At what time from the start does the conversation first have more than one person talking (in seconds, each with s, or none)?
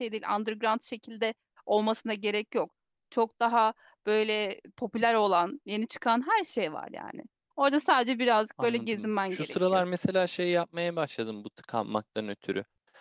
8.6 s